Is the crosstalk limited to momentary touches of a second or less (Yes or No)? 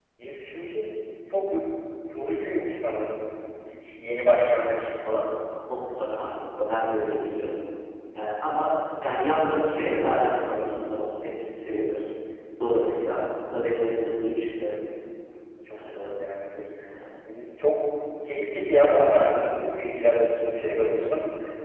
Yes